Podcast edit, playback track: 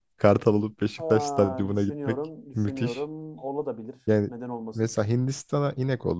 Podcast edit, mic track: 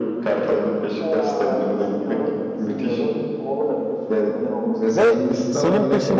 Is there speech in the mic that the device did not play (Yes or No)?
Yes